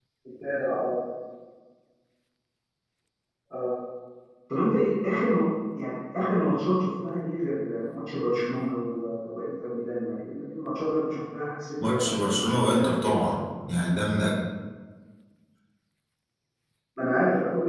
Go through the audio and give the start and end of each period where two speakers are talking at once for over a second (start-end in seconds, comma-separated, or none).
11.8-13.1